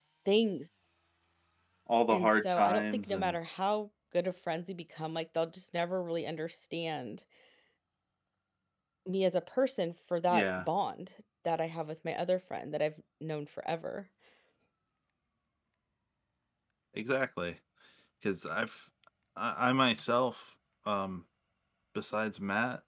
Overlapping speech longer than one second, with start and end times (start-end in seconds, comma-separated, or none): 2.1-3.4